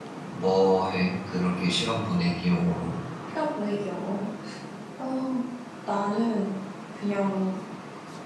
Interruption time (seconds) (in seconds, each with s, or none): none